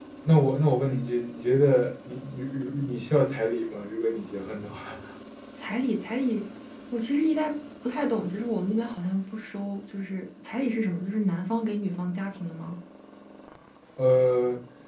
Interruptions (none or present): none